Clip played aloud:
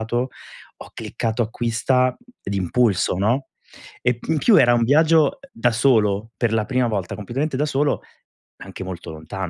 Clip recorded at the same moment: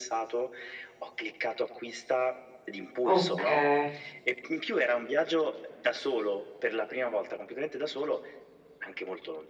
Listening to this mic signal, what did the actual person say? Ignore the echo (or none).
Okay.